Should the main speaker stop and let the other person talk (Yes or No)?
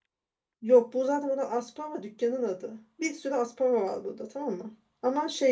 No